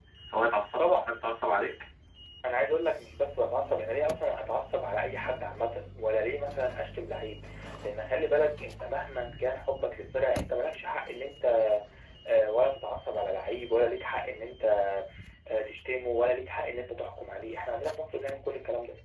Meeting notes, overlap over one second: none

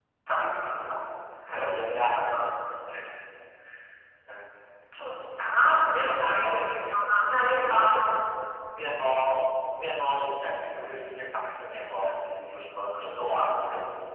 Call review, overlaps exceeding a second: none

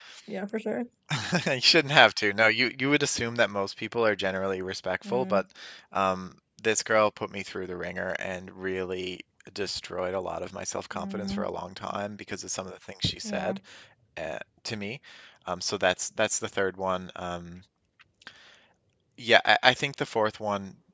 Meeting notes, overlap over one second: none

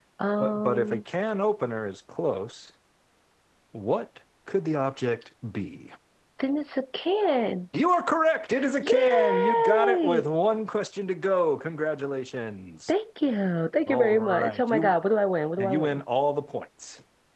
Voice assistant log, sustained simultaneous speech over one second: present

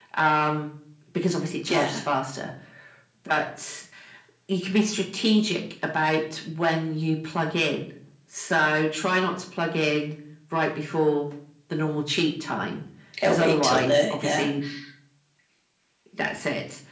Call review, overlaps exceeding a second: present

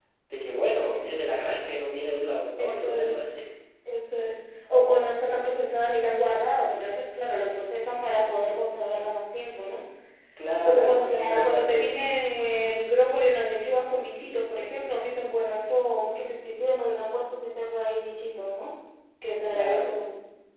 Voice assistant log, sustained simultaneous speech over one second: present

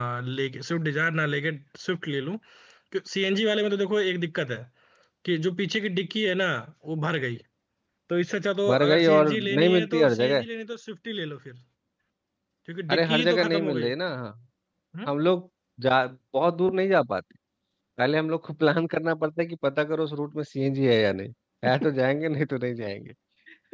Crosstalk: present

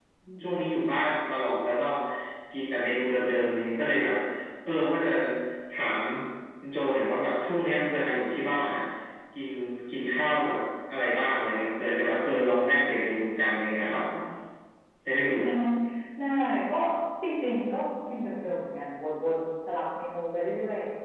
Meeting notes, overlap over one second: none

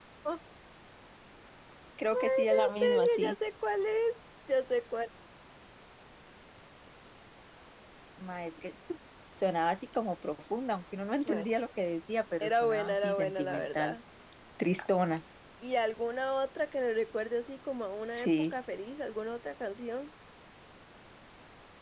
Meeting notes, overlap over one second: present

